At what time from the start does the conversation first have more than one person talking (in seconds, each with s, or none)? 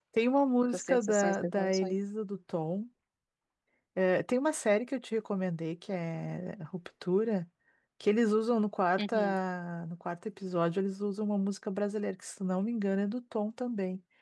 0.7 s